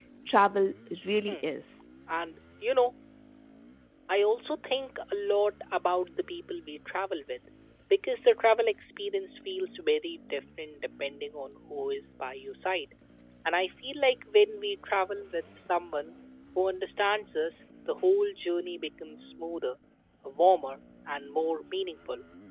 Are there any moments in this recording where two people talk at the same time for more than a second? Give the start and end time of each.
none

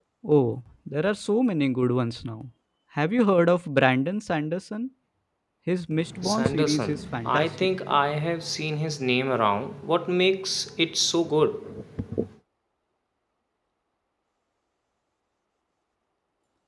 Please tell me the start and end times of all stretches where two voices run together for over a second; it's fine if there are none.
6.2-7.5

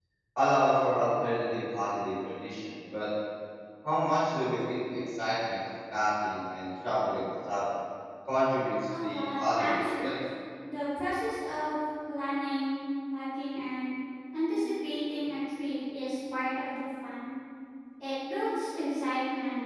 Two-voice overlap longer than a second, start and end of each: 8.9-10.2

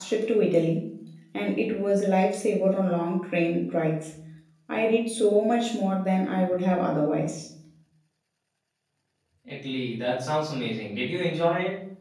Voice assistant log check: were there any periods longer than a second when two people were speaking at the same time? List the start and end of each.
none

